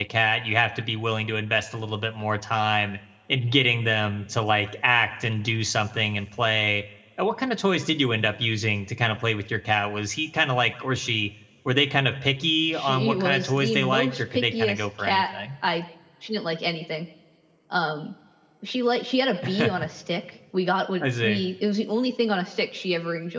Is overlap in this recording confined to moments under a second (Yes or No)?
No